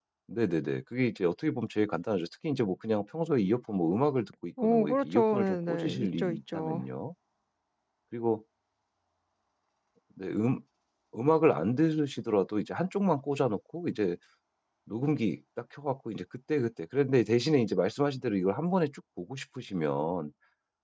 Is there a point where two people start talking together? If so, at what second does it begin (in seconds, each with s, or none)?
4.6 s